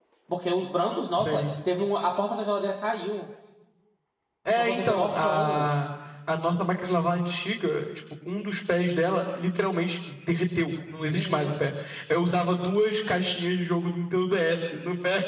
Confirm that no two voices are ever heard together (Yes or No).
No